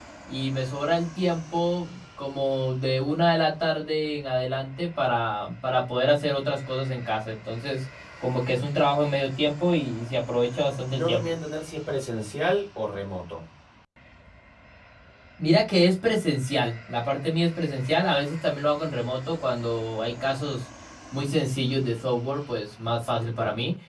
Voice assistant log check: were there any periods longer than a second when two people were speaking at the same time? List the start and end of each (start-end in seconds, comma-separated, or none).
none